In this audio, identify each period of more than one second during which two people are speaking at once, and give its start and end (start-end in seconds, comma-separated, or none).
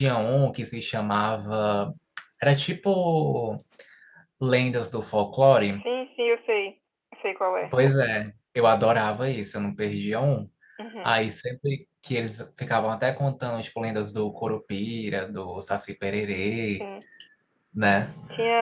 none